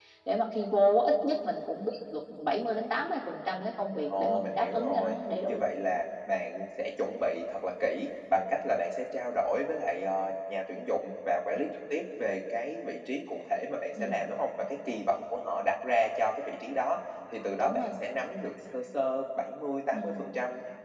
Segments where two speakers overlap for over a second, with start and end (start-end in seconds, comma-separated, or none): 4.1-5.6